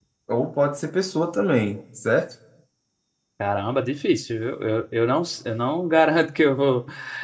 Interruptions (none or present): none